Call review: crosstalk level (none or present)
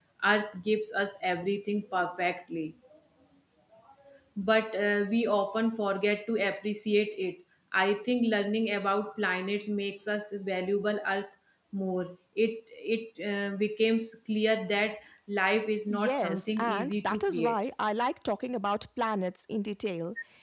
present